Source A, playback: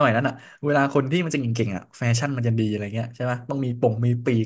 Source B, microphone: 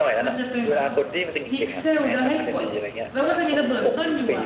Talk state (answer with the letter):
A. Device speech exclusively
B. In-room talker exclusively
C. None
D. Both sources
D